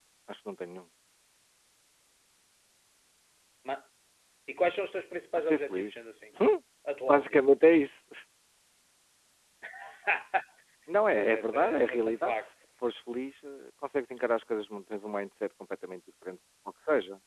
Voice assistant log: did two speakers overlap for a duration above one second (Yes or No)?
Yes